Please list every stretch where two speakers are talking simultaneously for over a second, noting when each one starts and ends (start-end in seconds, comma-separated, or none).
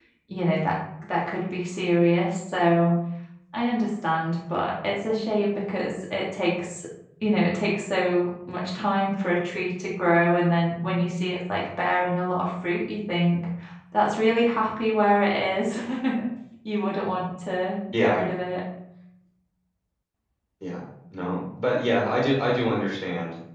none